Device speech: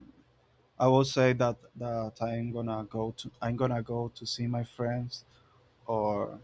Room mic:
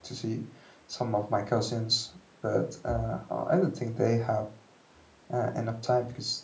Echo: none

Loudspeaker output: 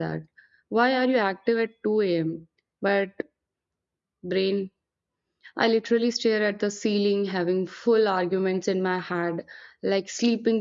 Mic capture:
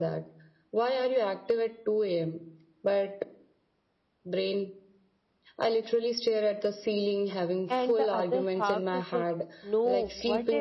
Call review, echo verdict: present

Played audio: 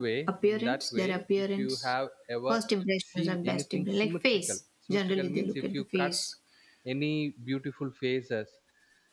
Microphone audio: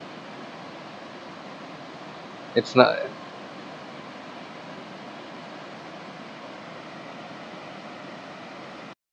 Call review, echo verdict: none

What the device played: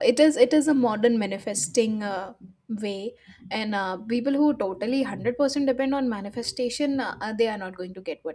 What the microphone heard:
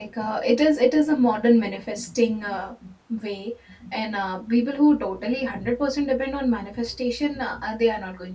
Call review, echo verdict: present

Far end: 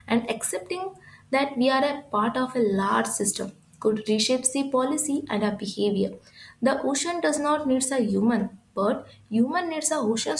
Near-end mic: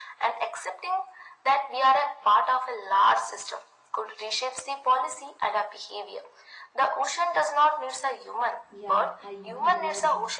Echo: present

